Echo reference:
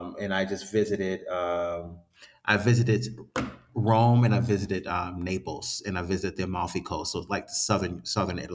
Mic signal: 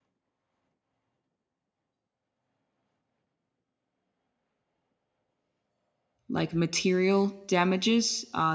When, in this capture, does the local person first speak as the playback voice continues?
6.3 s

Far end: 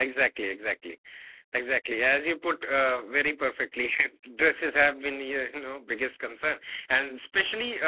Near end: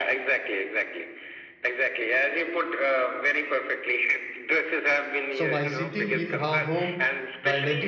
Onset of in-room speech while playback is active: 5.3 s

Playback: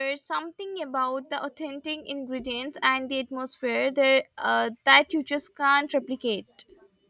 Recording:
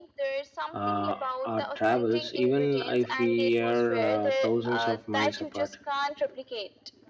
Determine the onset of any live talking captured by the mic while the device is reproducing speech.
0.7 s

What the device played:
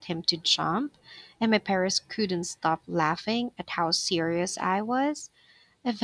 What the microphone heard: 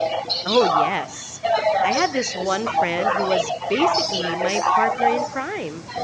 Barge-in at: 0.5 s

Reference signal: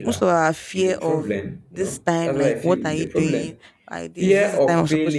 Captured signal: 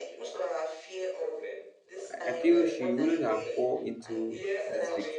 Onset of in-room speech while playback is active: 2.0 s

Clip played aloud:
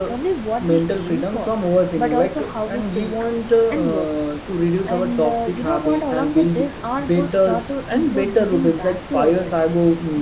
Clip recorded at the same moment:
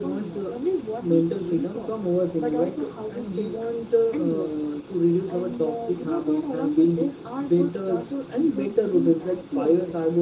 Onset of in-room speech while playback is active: none

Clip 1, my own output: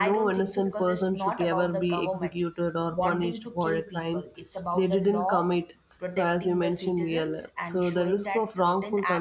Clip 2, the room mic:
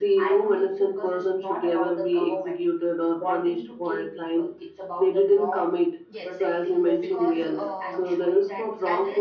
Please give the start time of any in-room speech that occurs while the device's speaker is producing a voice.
6.1 s

